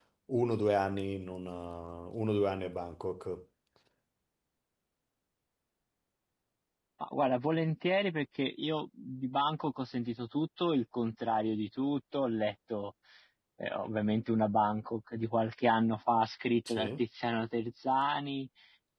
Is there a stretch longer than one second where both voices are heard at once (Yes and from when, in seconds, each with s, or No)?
No